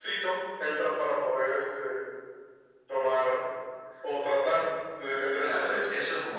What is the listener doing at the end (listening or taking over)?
taking over